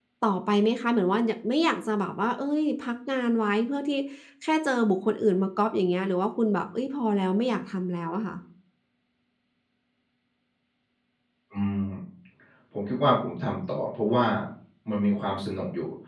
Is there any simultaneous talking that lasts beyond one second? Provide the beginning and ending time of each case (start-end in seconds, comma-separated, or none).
none